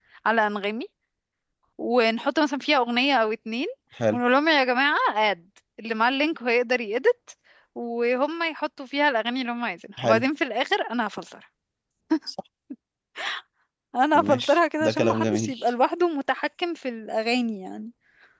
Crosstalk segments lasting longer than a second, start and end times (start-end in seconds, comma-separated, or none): 14.2-15.6